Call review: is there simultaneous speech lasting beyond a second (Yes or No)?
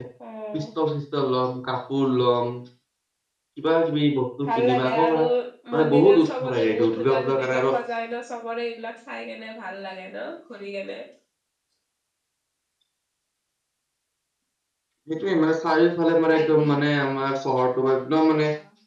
Yes